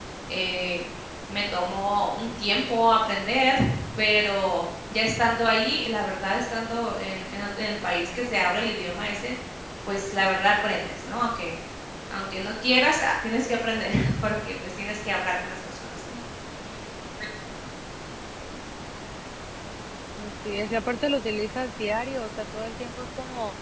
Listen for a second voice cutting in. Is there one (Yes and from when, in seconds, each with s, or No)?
No